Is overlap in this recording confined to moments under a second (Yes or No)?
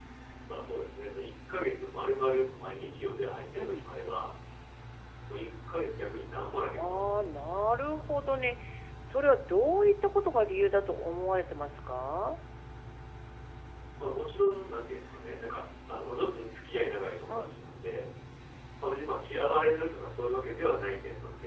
Yes